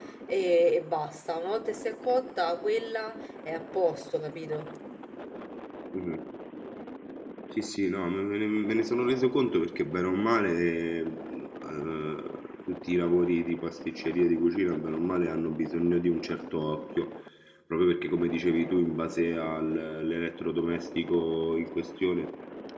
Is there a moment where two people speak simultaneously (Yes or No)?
No